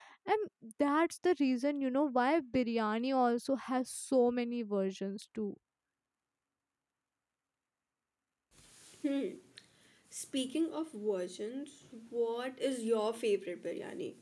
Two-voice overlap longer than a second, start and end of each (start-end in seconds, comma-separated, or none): none